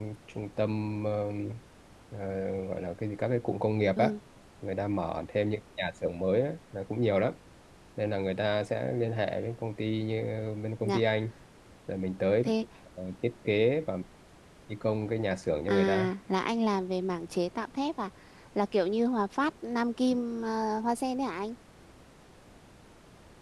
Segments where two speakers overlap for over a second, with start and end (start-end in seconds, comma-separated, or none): none